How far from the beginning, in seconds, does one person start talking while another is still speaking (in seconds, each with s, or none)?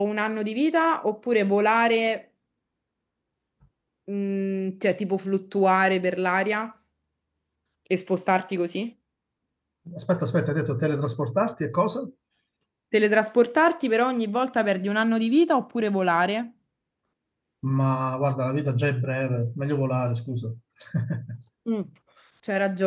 none